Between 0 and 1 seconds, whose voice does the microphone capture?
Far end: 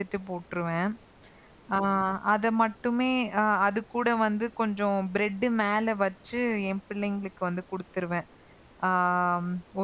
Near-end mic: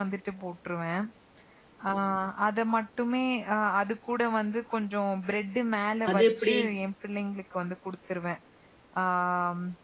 echo only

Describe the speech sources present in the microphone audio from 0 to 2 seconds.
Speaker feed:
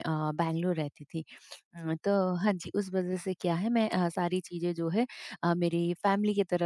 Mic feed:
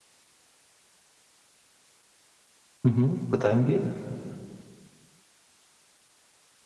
neither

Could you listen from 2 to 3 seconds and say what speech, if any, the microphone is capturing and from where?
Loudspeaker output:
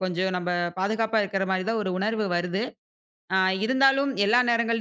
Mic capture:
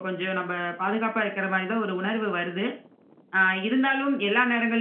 echo only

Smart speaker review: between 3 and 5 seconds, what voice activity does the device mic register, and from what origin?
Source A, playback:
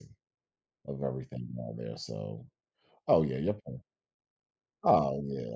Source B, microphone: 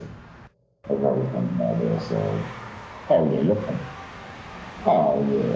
echo only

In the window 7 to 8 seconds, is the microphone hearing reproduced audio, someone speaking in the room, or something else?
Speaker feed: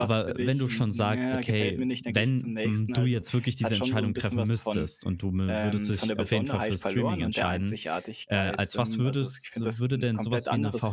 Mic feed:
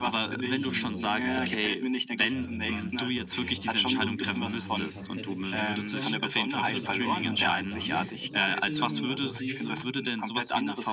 both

